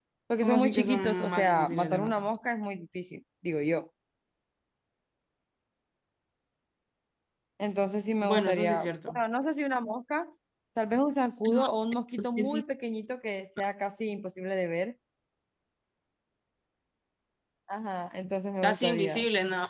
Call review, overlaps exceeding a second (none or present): present